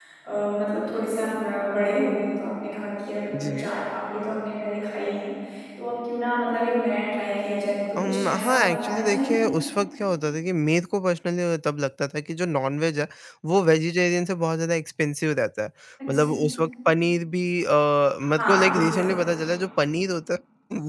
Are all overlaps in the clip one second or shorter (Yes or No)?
No